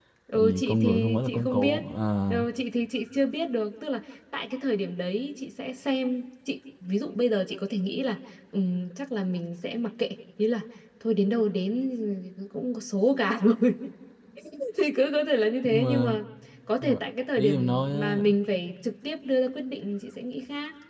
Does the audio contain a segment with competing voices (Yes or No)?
Yes